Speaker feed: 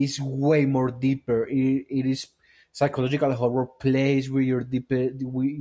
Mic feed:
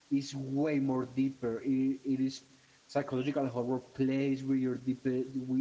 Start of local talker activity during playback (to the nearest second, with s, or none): none